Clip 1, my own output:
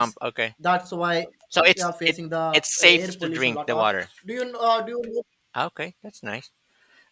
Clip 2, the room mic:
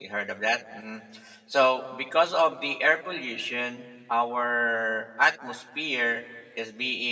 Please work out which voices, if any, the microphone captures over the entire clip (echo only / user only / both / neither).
user only